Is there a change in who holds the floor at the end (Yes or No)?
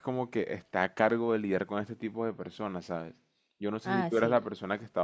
No